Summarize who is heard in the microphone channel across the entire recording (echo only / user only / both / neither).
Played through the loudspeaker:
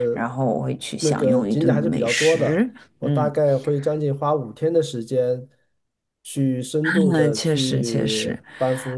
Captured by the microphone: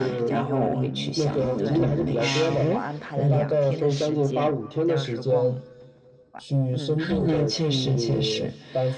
both